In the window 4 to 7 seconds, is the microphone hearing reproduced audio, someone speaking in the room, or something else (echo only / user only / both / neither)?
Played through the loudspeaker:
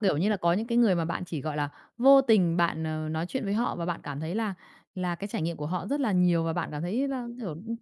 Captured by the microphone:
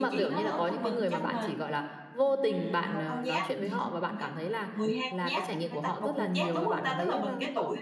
both